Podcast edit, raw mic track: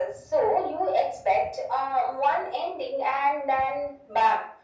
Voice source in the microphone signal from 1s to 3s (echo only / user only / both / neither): echo only